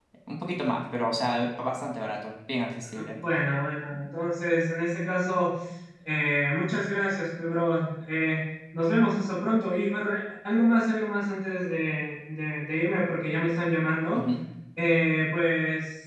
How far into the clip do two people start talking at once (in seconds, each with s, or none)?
none